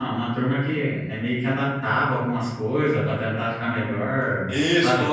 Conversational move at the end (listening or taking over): taking over